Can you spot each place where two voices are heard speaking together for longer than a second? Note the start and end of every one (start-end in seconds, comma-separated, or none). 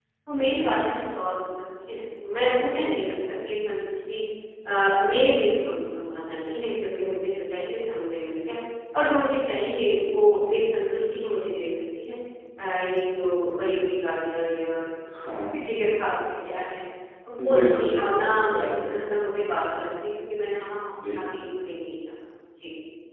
17.5-19.0